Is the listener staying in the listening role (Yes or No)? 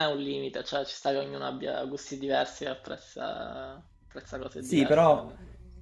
No